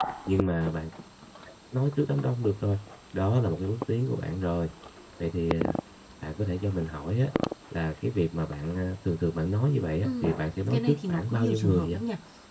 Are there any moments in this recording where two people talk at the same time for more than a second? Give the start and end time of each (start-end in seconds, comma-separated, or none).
10.7-11.9